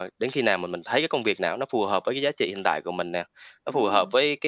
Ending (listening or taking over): listening